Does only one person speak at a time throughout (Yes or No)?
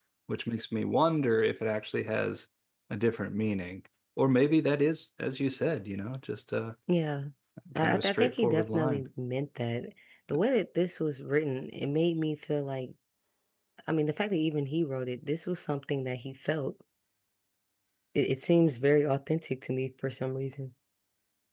No